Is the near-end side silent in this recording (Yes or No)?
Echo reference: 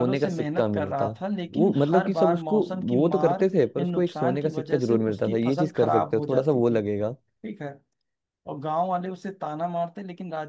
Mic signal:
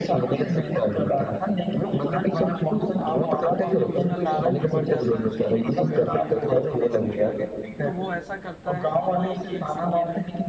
No